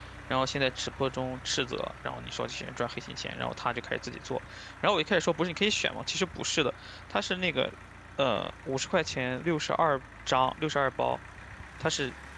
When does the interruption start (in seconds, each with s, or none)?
none